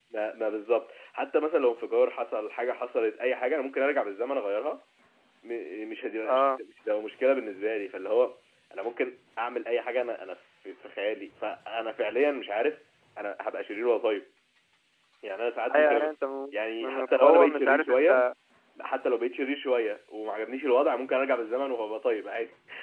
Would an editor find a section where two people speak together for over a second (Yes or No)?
Yes